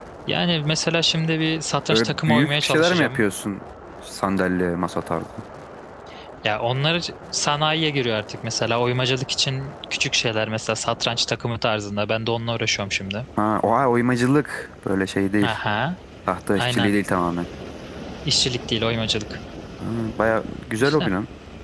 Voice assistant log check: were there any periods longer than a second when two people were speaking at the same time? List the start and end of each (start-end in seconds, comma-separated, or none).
1.9-3.2